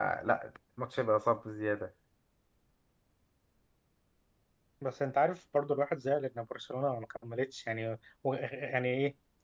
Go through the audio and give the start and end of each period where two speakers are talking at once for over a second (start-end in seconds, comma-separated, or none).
none